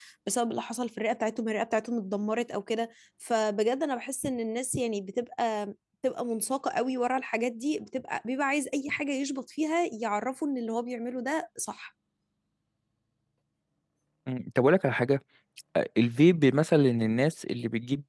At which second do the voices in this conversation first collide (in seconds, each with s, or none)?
none